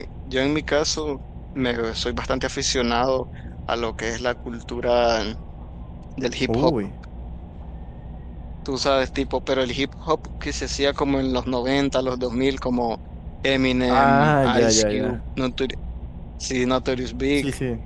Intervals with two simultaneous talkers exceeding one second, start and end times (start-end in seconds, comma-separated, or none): 13.9-15.2